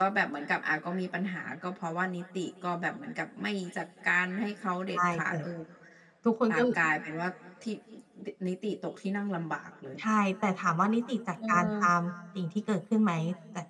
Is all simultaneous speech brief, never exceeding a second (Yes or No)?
Yes